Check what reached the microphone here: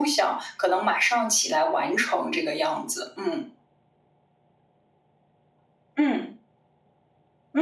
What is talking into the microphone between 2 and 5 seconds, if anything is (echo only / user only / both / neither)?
echo only